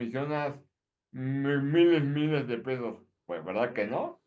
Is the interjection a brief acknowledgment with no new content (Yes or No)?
No